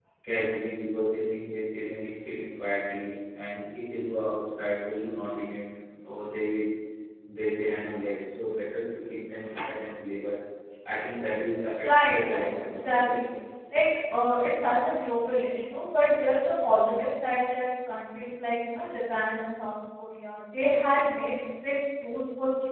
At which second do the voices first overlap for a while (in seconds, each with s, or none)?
11.8 s